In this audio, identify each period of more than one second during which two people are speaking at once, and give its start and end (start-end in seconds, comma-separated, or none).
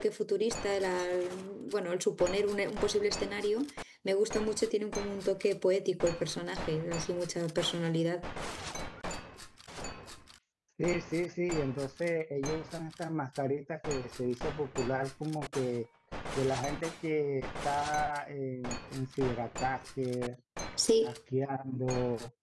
none